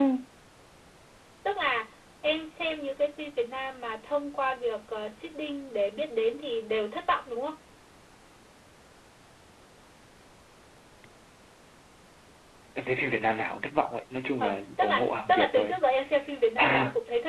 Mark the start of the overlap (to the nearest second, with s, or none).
14 s